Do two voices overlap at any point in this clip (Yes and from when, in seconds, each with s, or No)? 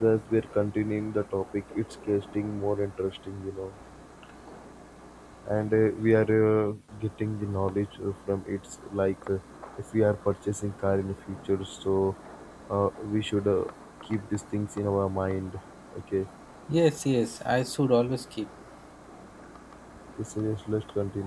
No